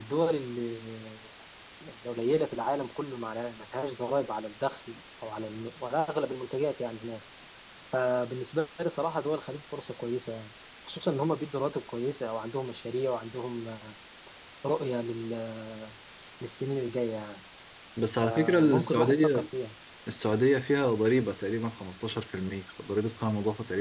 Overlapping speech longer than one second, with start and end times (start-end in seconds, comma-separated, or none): 18.2-19.4